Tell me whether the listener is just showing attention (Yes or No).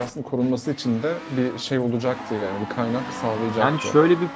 No